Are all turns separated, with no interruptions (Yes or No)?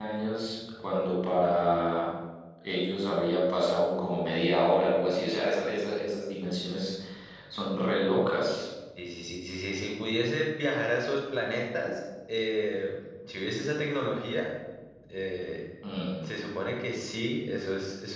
Yes